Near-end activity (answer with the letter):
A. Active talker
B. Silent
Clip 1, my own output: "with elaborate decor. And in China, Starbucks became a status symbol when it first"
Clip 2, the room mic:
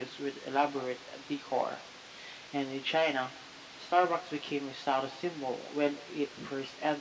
B